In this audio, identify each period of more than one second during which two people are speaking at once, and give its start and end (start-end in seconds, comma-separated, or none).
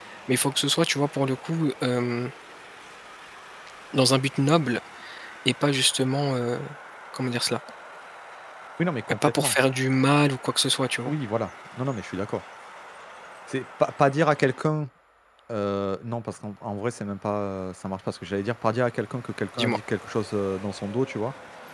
none